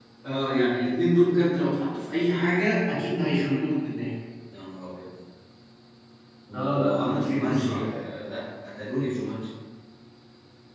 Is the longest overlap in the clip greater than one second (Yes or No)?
Yes